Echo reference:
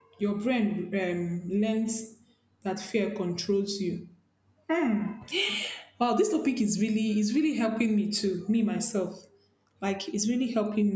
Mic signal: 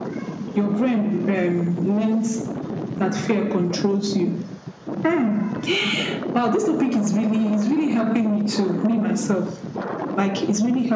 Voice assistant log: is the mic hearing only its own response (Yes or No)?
Yes